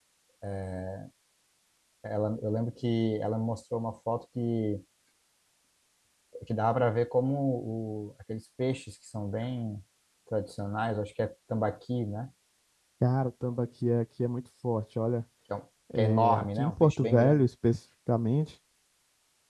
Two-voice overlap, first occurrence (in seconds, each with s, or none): 15.9 s